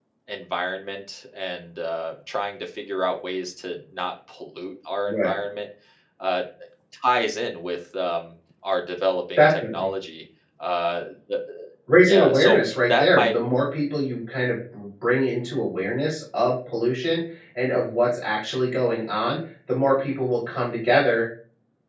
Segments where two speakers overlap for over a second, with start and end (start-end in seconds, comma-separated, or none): 12.0-13.4